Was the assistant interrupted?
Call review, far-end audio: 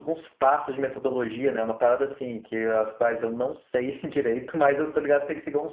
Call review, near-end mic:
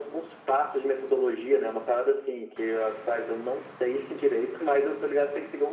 No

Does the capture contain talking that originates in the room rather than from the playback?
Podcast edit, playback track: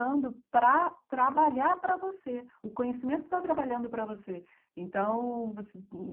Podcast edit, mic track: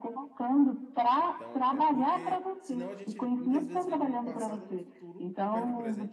Yes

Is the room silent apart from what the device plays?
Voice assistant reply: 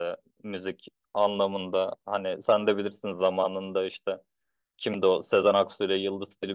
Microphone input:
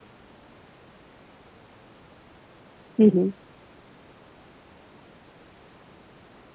No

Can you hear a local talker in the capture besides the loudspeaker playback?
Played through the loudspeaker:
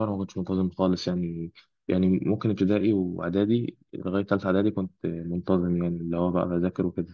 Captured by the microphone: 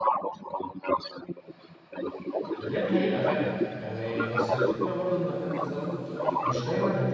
Yes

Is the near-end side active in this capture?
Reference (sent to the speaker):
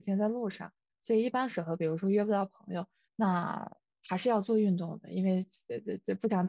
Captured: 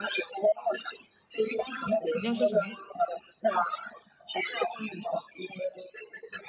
Yes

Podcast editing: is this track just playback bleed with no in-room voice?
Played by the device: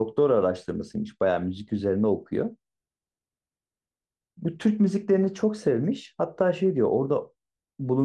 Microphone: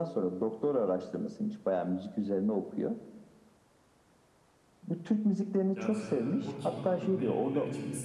No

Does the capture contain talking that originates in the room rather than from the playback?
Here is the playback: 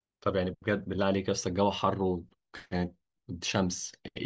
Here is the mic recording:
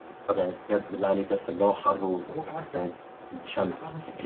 Yes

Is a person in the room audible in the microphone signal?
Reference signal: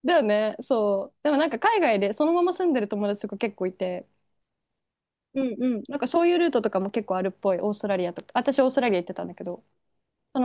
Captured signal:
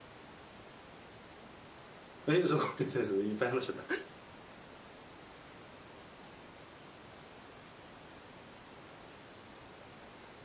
Yes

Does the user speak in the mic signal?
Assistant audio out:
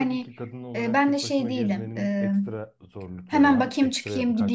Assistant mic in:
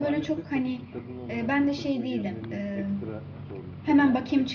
No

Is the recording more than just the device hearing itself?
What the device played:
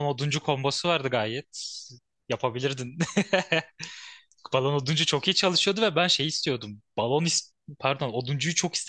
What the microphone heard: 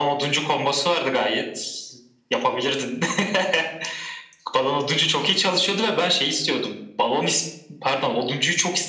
No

